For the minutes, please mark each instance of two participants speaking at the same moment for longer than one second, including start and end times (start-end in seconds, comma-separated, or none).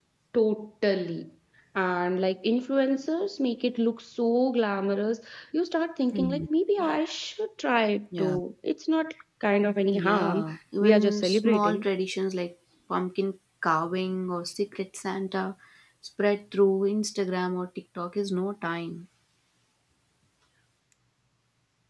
9.9-11.8